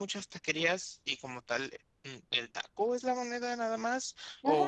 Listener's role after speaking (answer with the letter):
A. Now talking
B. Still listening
A